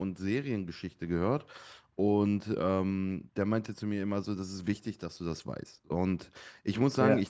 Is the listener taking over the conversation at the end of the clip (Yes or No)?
No